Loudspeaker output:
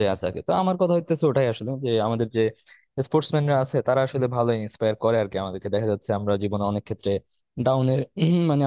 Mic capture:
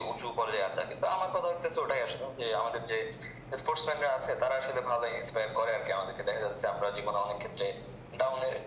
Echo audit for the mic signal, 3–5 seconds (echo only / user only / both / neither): echo only